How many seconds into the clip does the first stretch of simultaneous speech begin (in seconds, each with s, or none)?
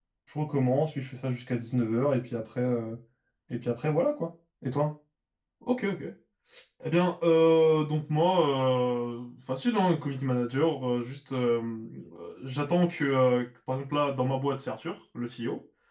none